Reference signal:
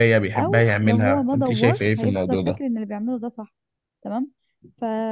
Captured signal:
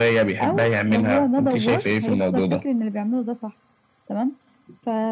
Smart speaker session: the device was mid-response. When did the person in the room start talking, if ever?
none

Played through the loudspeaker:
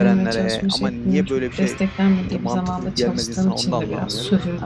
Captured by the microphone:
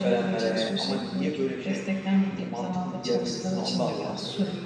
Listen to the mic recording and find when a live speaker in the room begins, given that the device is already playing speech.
none

